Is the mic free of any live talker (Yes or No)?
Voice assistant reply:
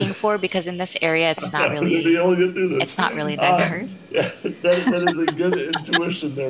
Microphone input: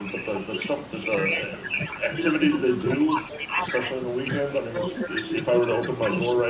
No